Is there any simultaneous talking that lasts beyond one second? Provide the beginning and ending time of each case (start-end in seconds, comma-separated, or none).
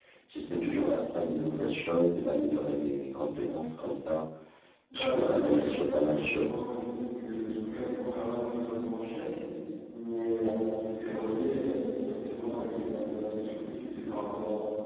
4.9-6.5